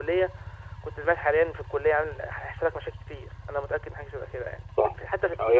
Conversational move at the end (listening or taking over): taking over